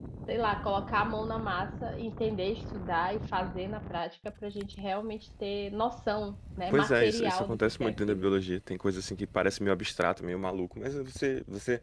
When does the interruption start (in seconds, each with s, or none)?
6.7 s